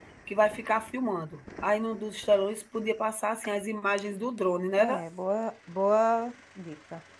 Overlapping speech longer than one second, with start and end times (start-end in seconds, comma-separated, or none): none